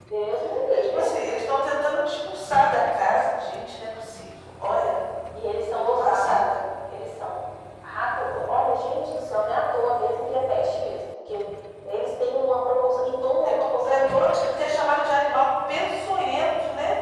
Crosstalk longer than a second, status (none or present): present